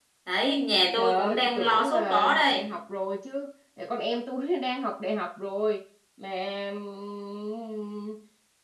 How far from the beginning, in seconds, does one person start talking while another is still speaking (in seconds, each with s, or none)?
1.0 s